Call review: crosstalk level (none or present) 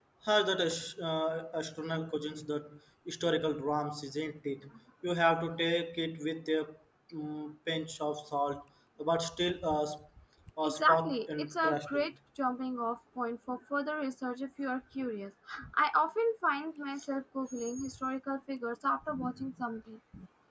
present